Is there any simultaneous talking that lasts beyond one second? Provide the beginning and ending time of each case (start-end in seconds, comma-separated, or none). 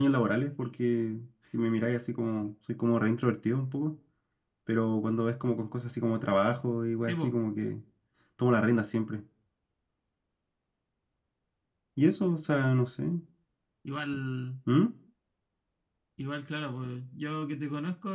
none